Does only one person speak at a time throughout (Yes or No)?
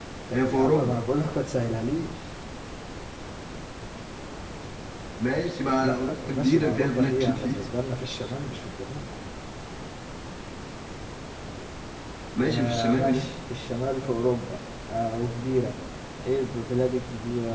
No